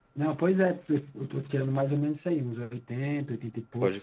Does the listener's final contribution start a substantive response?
Yes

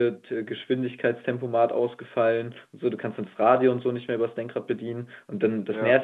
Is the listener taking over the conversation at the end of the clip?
No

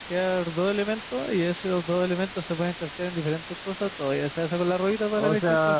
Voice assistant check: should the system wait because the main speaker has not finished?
No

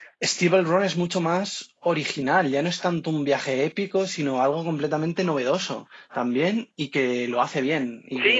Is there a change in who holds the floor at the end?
Yes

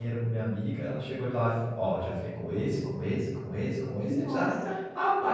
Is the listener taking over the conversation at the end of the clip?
No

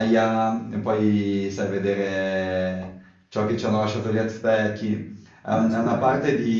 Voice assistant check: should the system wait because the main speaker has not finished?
Yes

